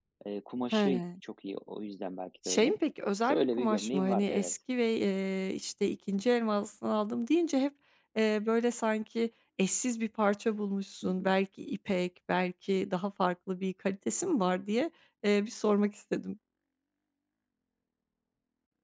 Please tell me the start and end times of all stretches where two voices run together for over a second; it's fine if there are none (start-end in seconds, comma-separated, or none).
3.2-4.5